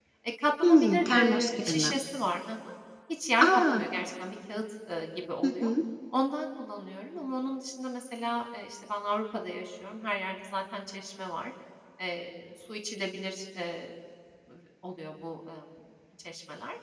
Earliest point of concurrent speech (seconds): 1 s

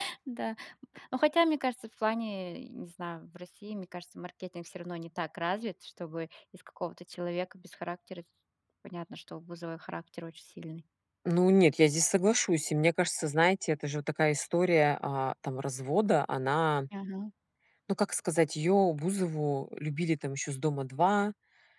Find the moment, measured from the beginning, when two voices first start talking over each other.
none

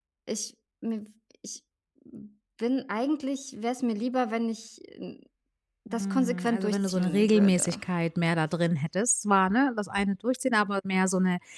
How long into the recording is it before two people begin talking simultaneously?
6 s

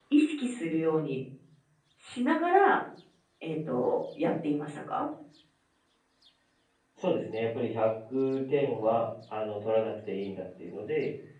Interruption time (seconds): none

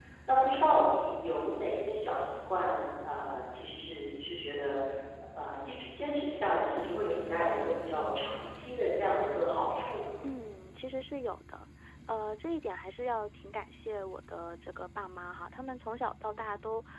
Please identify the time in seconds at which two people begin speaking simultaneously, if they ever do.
none

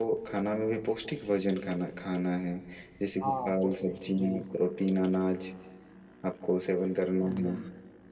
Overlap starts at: 3 s

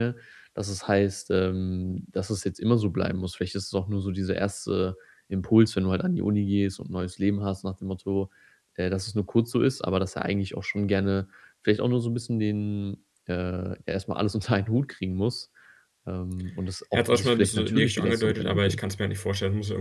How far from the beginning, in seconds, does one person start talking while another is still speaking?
17 s

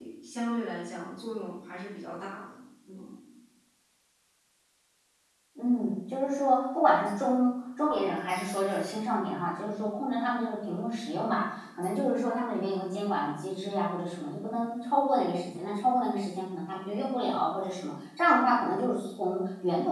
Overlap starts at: none

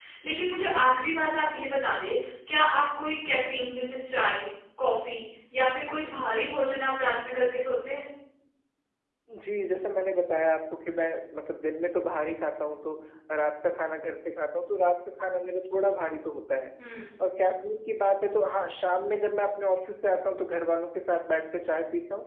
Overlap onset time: none

